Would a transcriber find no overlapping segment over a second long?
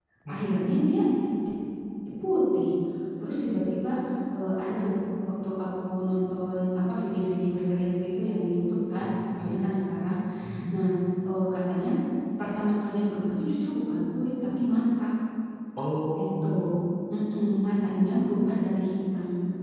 Yes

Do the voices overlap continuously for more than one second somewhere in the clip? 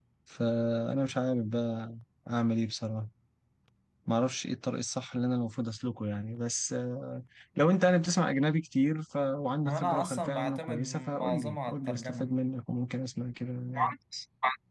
Yes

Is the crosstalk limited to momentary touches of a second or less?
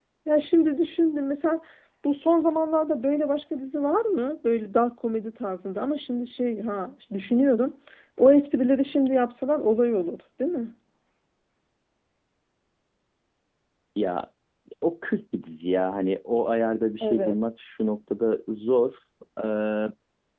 Yes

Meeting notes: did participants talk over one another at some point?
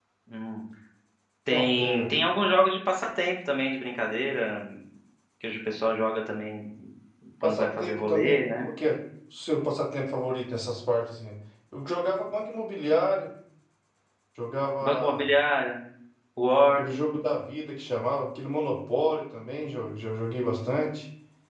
Yes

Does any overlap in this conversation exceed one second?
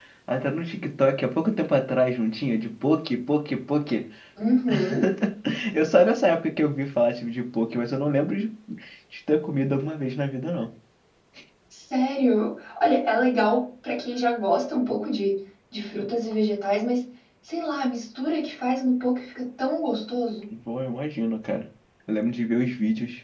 No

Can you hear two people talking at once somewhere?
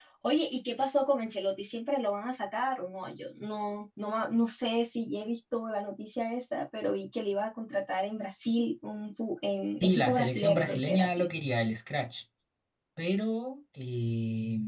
Yes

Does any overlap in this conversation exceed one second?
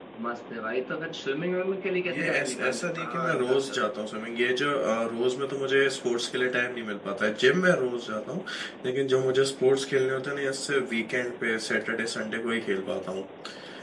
Yes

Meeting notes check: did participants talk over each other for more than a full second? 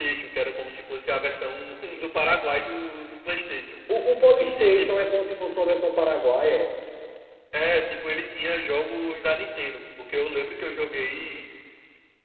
No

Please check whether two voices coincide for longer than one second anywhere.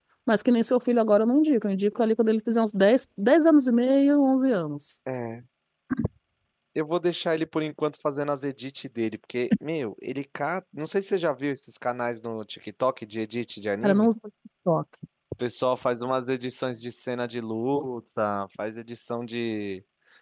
No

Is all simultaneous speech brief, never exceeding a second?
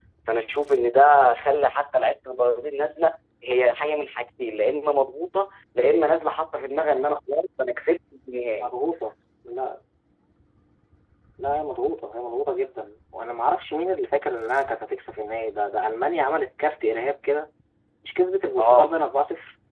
Yes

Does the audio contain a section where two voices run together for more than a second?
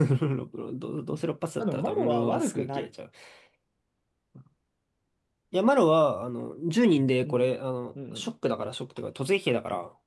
Yes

